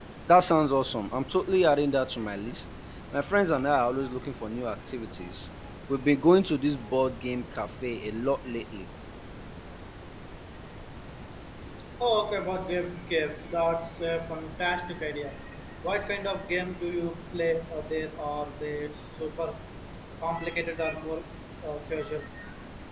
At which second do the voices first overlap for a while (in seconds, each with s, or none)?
none